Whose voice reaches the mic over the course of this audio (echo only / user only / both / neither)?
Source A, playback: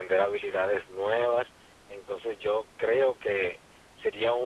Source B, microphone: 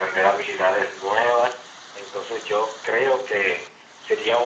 echo only